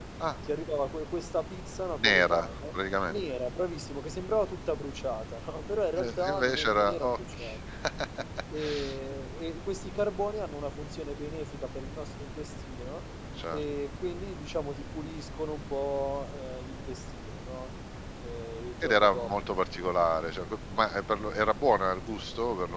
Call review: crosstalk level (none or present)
present